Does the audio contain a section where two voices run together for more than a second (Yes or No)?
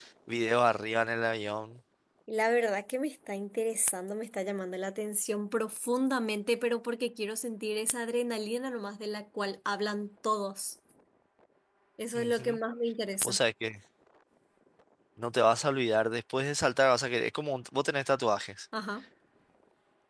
No